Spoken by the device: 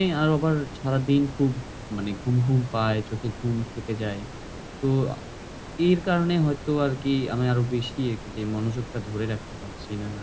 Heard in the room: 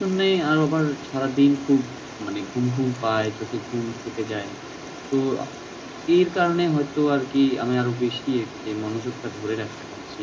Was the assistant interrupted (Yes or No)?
No